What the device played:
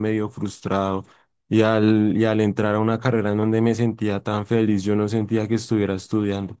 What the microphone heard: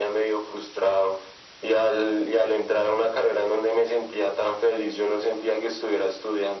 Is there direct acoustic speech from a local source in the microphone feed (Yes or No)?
No